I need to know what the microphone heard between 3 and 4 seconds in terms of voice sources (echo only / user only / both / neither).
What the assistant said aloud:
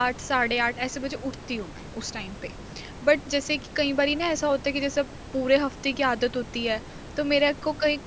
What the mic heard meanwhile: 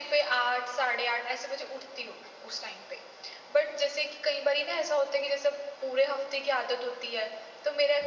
echo only